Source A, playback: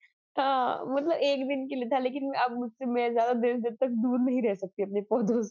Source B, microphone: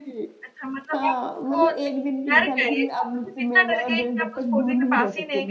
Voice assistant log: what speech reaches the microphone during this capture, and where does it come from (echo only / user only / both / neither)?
both